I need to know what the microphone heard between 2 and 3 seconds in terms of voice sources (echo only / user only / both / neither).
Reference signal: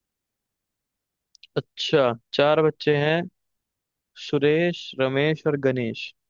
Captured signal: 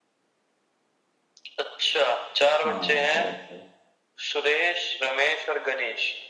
both